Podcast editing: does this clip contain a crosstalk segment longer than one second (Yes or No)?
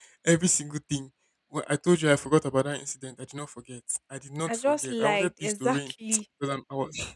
Yes